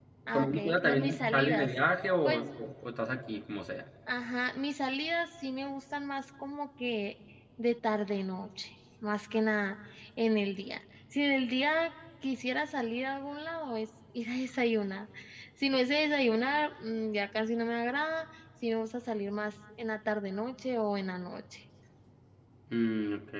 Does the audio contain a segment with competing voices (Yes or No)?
Yes